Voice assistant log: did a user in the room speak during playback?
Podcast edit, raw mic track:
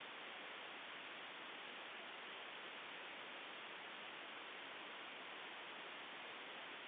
No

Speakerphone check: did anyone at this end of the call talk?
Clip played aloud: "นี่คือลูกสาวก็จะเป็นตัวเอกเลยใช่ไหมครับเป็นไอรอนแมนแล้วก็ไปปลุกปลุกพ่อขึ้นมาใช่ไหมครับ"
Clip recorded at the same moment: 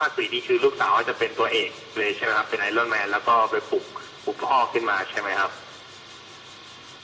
No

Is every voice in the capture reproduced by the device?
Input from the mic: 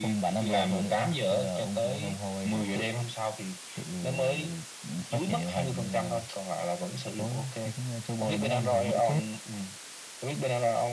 Yes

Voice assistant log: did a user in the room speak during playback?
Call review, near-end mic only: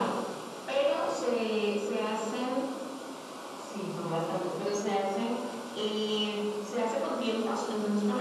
No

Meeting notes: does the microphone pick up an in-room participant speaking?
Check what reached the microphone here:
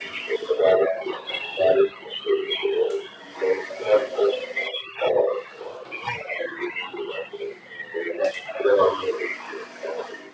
No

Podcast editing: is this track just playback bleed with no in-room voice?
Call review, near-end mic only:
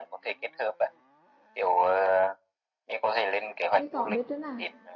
No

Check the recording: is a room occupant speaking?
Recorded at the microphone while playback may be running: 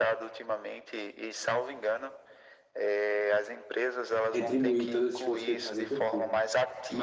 Yes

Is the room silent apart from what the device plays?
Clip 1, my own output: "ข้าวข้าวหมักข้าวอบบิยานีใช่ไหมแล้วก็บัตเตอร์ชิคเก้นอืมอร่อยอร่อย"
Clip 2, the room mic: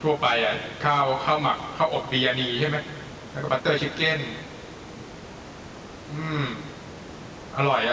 Yes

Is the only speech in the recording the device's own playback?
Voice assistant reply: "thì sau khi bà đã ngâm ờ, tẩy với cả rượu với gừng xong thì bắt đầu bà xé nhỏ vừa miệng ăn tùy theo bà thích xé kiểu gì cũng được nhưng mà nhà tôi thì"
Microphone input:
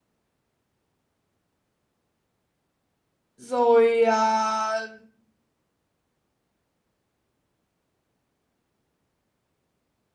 No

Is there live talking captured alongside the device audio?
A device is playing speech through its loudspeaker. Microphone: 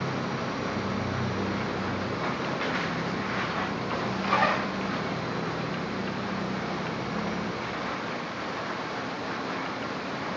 No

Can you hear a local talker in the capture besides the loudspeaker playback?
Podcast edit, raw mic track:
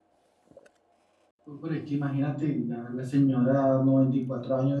Yes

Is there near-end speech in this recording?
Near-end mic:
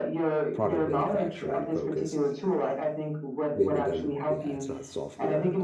Yes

